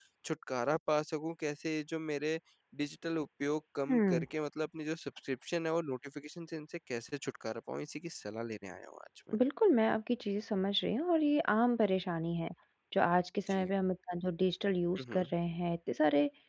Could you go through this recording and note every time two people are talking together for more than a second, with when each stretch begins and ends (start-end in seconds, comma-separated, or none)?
none